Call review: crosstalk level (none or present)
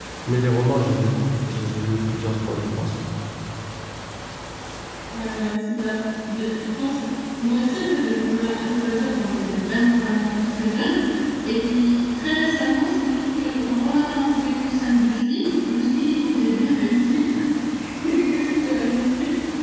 none